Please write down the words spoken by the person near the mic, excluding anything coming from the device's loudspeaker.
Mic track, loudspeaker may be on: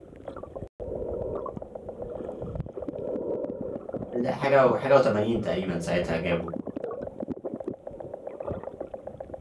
ده حاجه و- حاجه و80 تقريبا ساعتها جابوا

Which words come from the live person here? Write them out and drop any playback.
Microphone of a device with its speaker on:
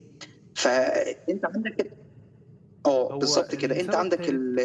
هو لسبب ثالث

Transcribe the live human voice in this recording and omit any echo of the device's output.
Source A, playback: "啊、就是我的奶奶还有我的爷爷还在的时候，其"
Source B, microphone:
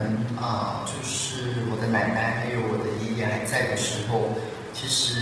none

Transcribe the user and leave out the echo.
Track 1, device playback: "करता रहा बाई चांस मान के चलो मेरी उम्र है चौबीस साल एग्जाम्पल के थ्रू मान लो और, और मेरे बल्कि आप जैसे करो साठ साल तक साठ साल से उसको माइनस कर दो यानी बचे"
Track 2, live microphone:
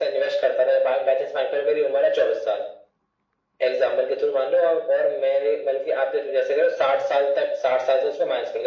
none

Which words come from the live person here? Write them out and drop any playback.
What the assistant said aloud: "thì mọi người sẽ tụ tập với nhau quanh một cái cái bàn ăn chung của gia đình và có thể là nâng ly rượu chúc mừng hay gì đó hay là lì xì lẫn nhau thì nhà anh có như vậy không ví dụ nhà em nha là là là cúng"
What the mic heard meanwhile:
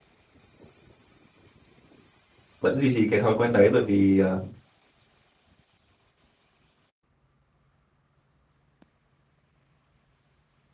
vẫn duy trì cái thói quen đấy bởi vì ờ,

